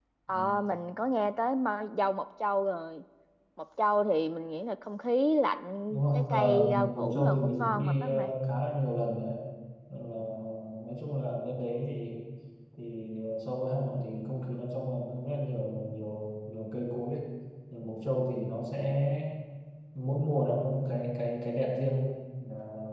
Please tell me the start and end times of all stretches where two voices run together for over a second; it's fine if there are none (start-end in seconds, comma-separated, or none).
5.9-8.3